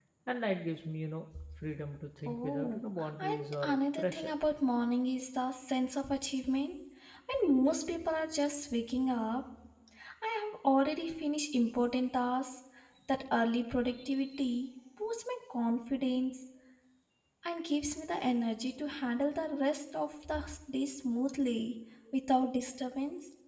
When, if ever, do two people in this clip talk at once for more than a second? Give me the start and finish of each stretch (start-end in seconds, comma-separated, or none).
2.3-4.3